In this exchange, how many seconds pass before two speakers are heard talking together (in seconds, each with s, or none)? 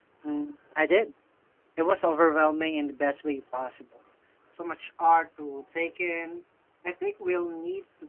none